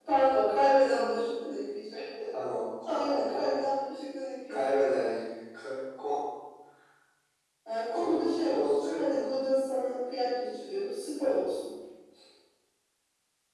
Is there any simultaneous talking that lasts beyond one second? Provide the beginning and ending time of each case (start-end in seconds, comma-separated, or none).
7.9-9.3